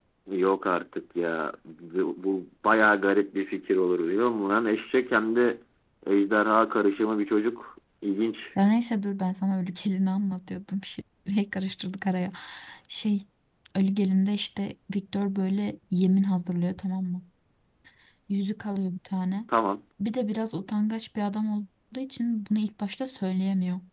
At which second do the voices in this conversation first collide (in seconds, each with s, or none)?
none